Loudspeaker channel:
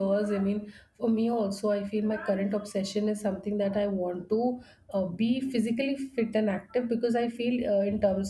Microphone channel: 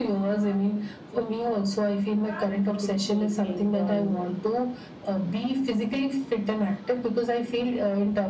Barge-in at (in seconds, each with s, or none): 2.7 s